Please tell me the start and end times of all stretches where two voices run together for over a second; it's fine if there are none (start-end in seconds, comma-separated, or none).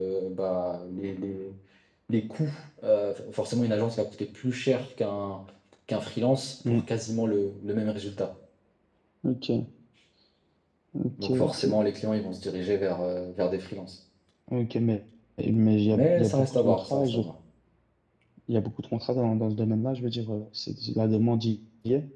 15.9-17.2